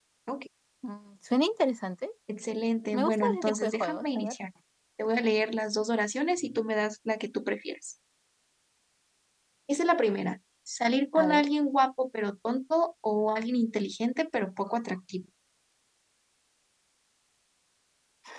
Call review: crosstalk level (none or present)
present